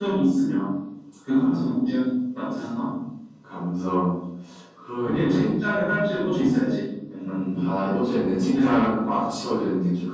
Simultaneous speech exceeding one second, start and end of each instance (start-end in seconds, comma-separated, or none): 7.8-9.2